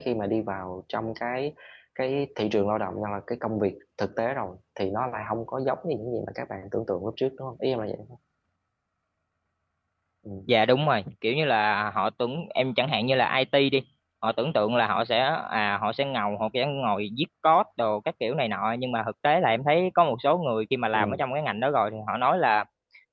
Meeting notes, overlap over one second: none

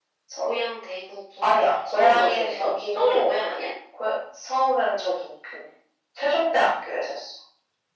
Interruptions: present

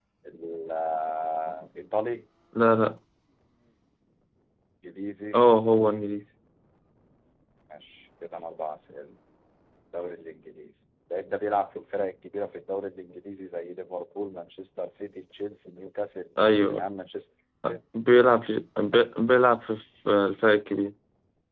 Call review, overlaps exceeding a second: none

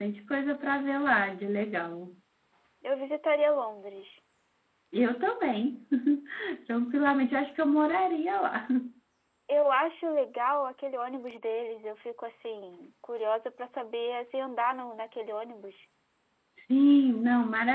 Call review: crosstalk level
none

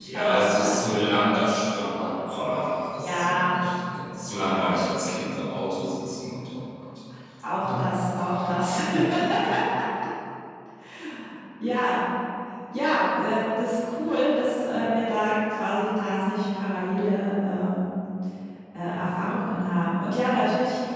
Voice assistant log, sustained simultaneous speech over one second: present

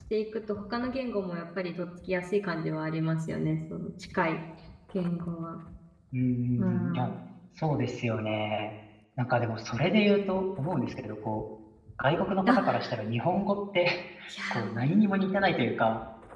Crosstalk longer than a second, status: none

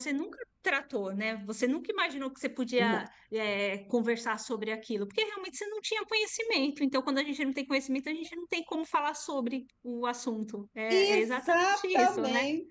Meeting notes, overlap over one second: present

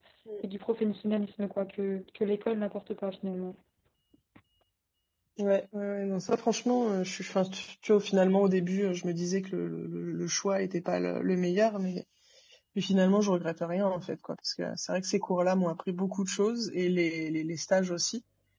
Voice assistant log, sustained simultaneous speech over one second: none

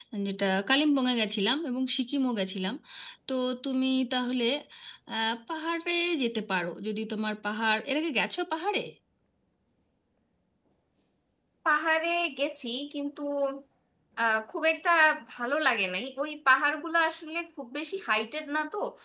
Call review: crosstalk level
none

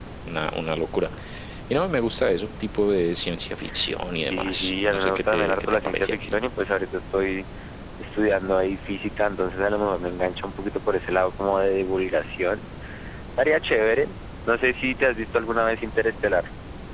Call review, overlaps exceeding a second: present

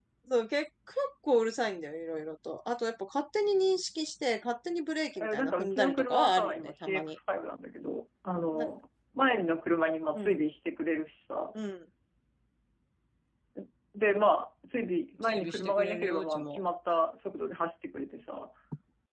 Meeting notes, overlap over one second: present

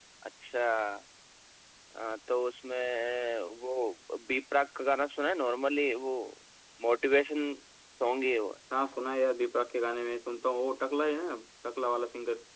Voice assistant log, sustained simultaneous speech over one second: none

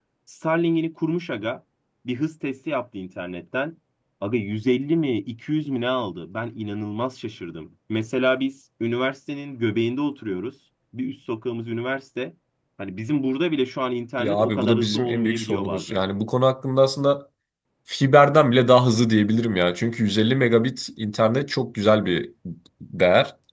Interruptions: present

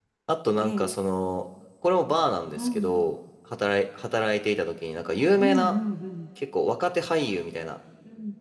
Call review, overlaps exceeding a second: none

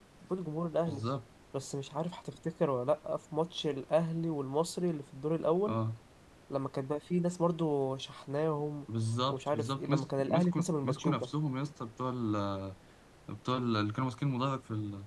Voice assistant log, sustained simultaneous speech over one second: present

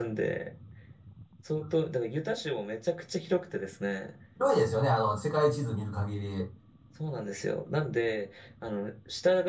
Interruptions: none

